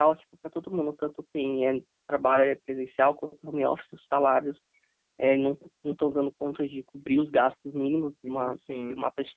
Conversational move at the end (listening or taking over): listening